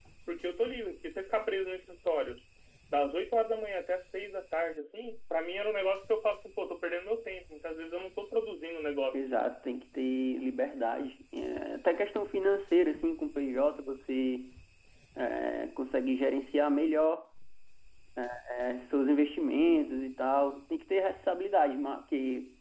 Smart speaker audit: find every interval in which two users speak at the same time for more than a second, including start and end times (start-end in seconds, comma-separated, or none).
none